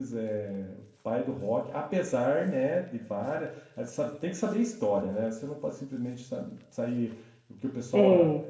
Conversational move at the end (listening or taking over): listening